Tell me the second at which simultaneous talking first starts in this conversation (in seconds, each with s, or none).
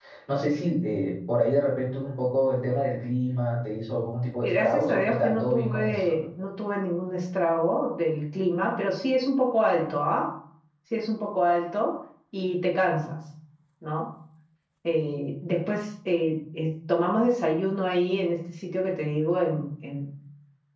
4.4 s